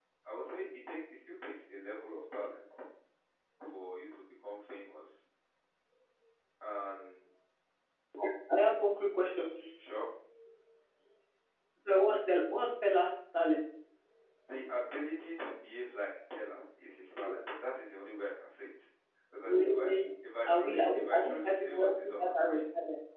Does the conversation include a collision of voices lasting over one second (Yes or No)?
Yes